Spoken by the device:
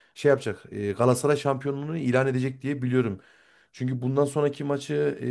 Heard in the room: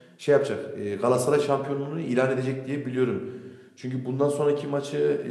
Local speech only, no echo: none

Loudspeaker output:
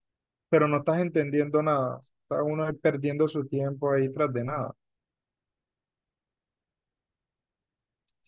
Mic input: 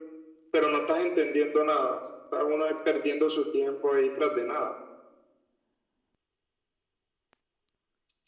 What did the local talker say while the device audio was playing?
none

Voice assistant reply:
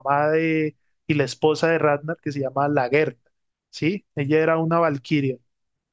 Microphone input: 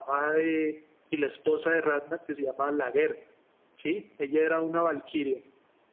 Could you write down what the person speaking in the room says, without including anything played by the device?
none

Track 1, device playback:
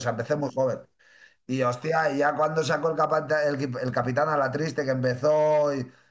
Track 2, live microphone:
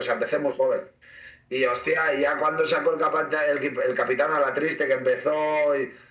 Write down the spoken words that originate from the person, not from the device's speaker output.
none

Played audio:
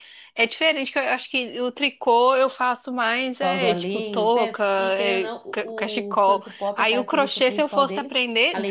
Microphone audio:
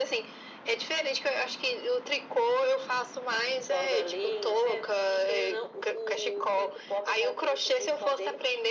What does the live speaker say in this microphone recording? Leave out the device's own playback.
none

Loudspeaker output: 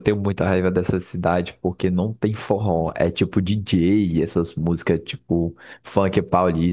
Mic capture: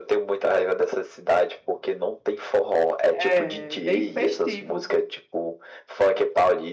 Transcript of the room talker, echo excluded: é bem festivo.

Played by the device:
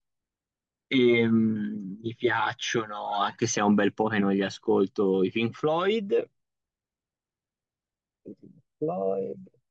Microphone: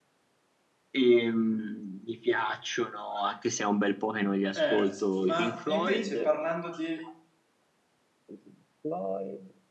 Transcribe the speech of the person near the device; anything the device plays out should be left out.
Eh, ma invece parlando di

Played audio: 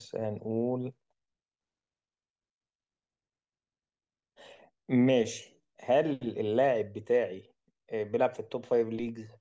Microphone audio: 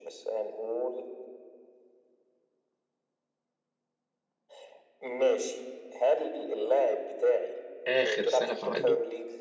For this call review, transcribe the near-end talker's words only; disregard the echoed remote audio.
آخر سنة في عقده؟

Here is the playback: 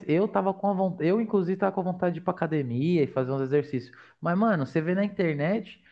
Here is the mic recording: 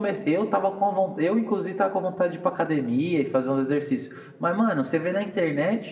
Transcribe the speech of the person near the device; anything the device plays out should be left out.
none

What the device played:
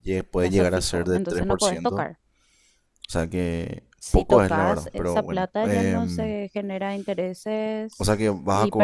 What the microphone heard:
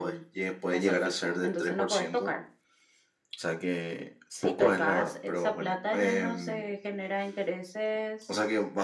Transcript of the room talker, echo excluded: none

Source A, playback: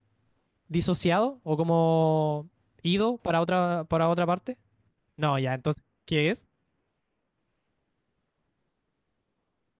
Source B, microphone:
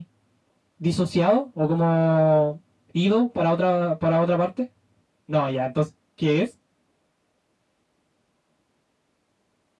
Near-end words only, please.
none

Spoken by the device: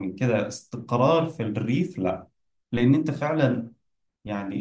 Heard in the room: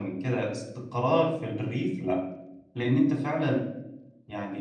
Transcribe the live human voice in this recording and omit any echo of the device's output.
none

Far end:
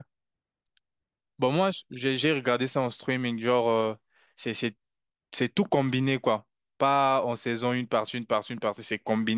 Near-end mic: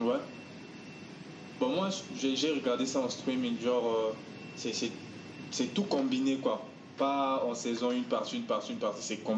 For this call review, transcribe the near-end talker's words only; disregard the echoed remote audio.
none

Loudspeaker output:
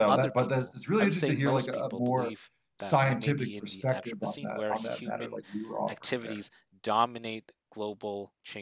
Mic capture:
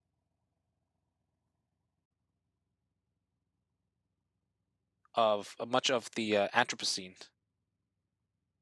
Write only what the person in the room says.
of much of the uh, Anthropocene.

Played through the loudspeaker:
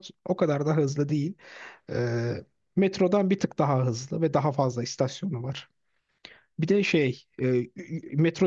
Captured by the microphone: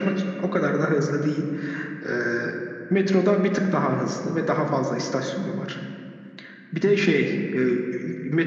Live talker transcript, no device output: none

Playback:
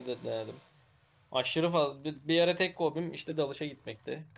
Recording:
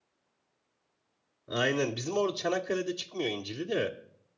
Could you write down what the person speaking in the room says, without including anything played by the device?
Aynen bizim orada Çanakkale'de çıkmıyor incili de.

